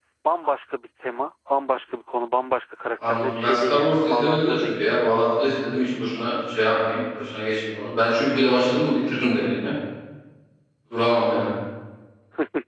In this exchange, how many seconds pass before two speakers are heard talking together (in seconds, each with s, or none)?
3.0 s